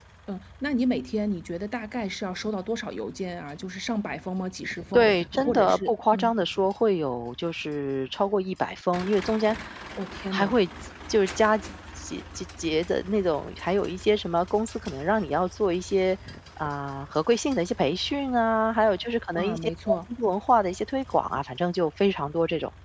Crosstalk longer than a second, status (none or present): present